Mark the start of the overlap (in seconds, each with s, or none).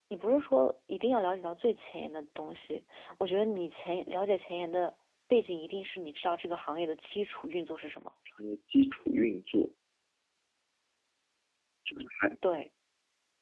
none